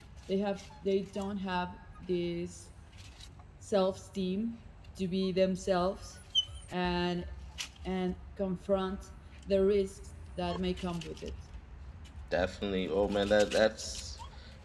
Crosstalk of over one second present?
No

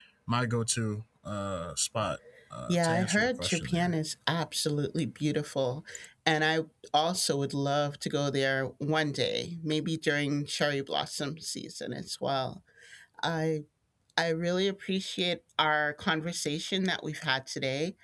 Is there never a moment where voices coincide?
No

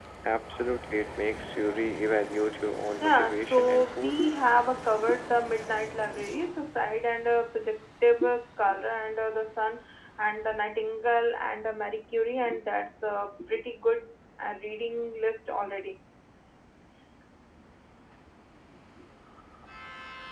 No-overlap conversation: No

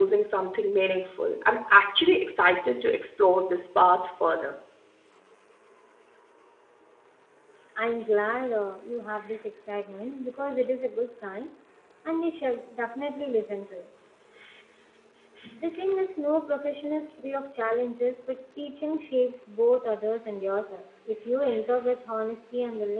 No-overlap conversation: Yes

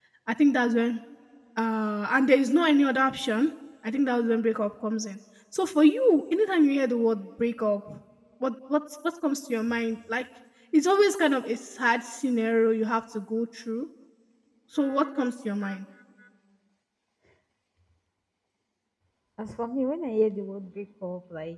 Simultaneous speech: No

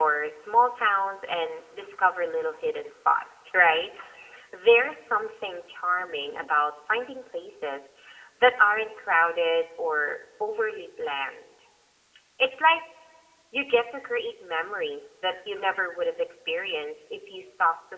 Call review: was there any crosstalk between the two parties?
No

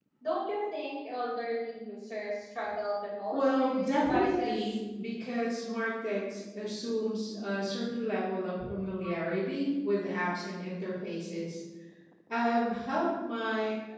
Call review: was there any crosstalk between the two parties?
Yes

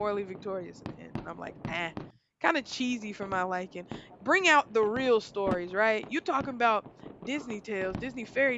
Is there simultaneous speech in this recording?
No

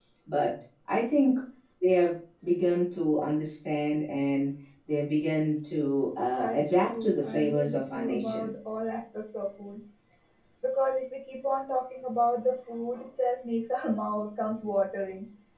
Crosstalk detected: Yes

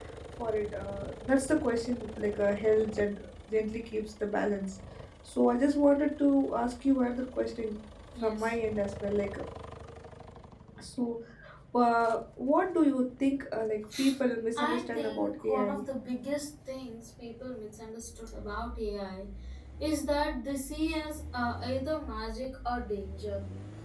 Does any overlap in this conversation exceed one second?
Yes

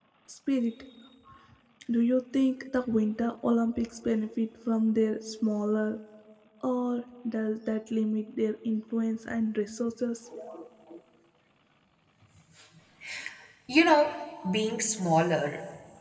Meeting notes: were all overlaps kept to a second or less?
Yes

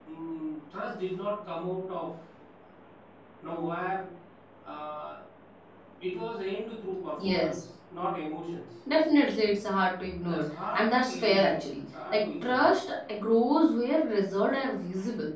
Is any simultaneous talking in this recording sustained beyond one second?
Yes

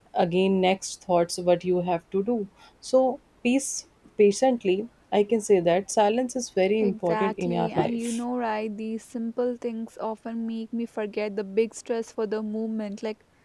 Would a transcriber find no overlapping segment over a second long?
No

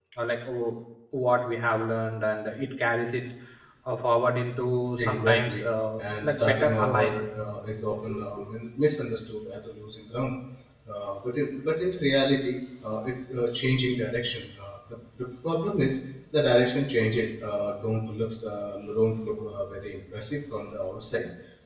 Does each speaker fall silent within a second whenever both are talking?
No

